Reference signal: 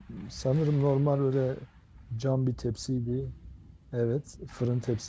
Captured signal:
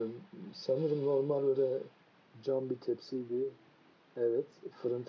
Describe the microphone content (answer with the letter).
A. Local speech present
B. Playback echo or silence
B